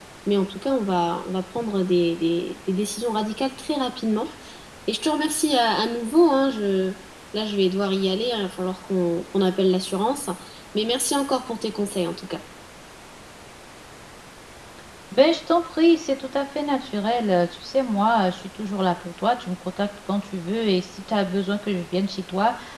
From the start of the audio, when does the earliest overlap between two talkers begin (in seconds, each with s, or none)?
none